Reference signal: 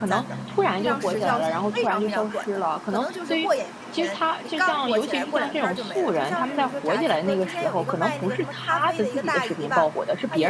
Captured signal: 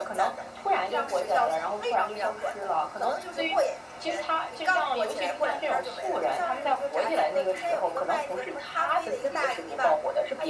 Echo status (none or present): present